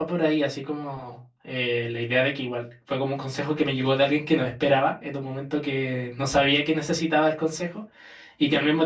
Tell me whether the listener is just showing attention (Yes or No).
Yes